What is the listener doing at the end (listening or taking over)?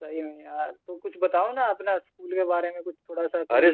taking over